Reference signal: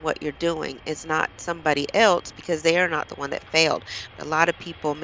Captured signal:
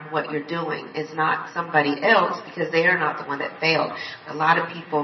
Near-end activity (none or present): none